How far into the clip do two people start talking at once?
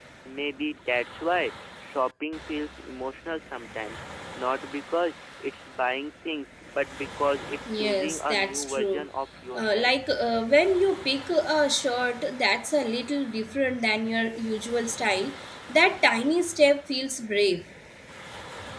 7.8 s

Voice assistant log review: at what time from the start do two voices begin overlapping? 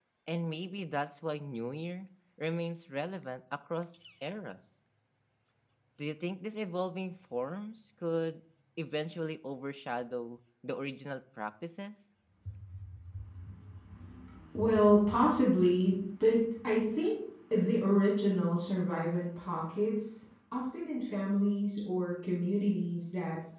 none

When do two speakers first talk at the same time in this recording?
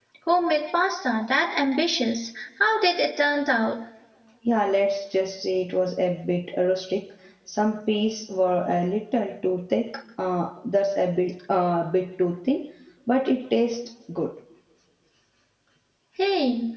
none

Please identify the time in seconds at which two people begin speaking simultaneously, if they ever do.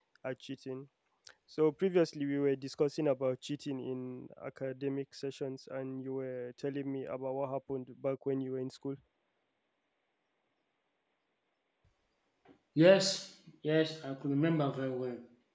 none

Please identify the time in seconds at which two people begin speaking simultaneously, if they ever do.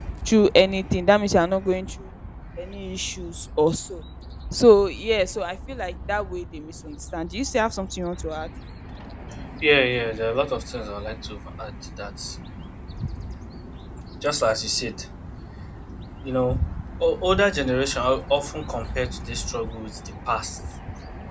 none

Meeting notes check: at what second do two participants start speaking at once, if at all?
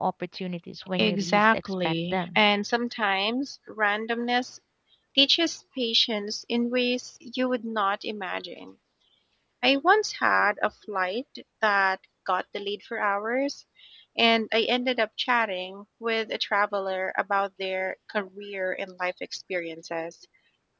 1.0 s

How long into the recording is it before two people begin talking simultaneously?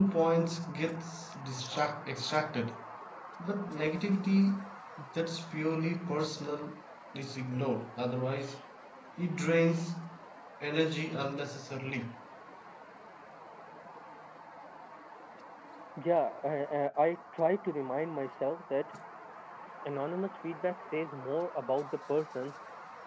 none

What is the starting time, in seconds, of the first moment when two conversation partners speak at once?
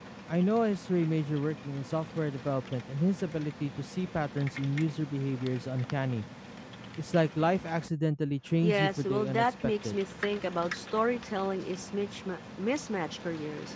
8.6 s

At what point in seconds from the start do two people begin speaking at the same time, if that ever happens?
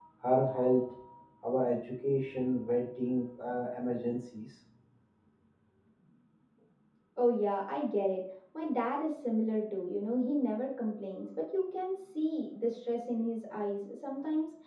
none

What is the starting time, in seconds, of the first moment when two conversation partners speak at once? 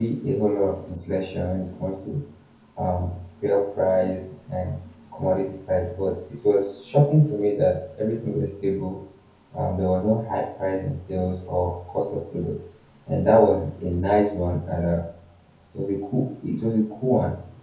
none

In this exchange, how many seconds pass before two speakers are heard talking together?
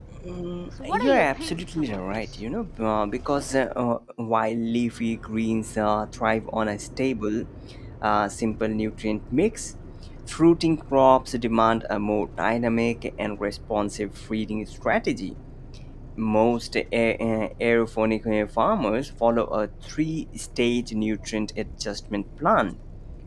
0.8 s

